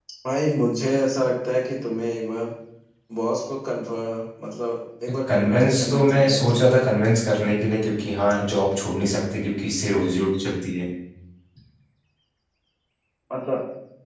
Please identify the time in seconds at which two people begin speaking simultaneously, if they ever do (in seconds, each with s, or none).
5.3 s